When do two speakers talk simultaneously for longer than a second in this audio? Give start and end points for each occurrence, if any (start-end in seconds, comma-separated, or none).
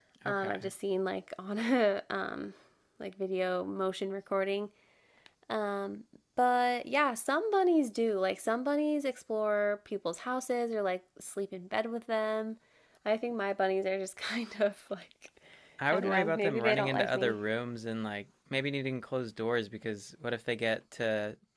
15.9-17.4